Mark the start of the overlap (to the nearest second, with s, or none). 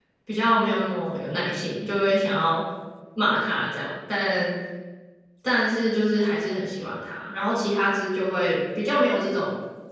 none